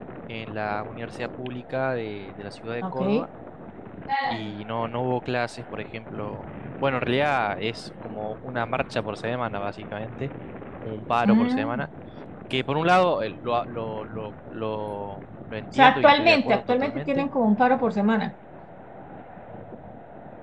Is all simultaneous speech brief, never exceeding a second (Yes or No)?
No